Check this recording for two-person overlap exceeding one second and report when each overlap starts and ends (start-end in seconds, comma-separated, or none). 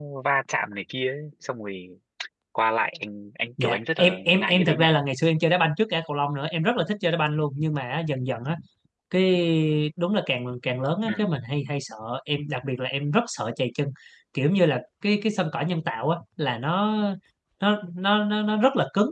3.6-4.9